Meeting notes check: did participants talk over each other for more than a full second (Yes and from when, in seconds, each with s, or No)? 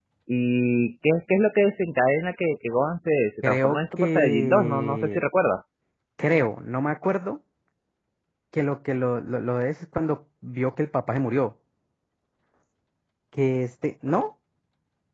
Yes, from 3.4 s